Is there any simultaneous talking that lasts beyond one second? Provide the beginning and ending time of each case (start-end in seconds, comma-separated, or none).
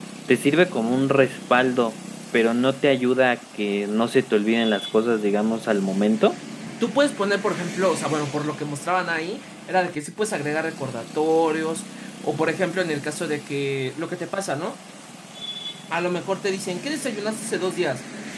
none